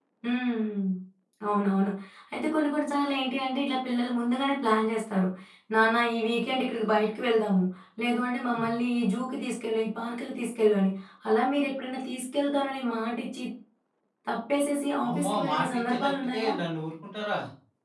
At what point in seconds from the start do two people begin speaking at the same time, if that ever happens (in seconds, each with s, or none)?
15.1 s